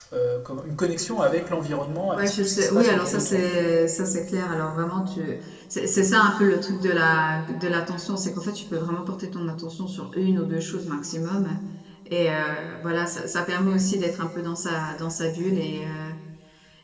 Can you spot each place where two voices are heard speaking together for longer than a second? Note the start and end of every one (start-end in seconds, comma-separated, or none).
2.1-3.4